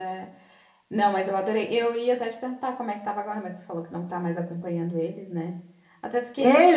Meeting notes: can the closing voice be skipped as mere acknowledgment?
No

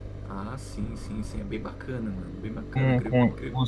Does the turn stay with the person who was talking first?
No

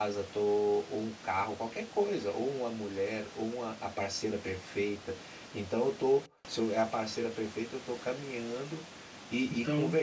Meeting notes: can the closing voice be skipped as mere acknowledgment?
Yes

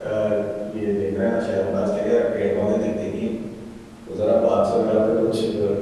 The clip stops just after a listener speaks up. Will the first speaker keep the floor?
Yes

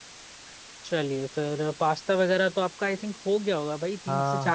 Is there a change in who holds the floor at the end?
Yes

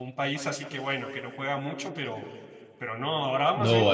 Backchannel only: No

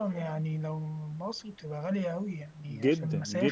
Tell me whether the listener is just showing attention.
No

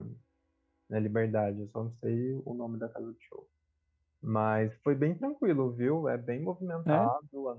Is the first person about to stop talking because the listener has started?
No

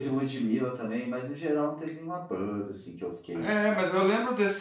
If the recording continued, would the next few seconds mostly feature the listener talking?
Yes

